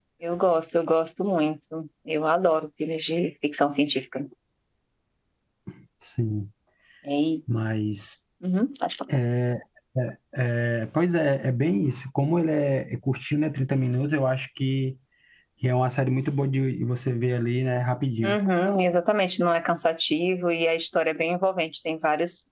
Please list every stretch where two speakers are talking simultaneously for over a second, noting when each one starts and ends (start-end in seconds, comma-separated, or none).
none